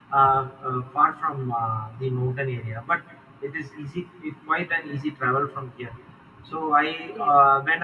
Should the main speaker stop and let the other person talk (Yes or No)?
No